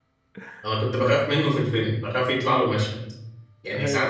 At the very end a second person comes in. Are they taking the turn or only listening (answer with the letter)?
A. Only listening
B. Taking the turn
A